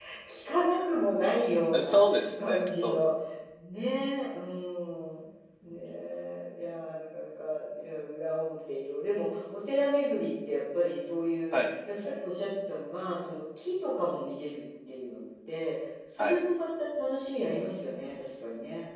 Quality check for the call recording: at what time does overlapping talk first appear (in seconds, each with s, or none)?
1.7 s